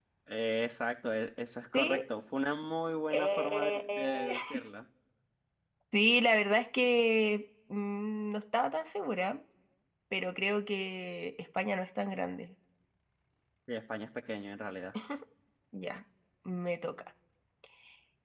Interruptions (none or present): present